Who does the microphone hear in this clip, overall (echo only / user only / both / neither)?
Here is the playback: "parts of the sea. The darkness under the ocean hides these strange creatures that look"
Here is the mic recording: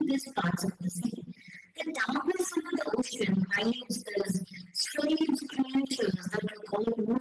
echo only